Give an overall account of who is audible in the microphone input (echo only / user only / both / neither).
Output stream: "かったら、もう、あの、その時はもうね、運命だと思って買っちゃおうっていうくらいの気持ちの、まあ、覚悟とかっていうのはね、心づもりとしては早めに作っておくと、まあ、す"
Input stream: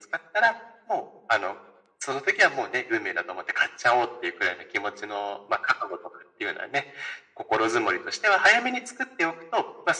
echo only